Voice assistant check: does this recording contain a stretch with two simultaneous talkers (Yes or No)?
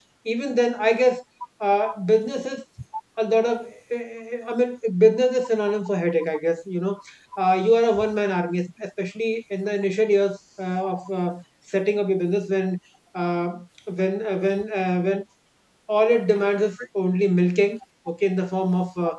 No